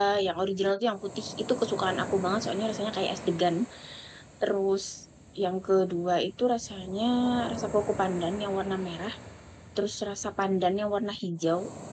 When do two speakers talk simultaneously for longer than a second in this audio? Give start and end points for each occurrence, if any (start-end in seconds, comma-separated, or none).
none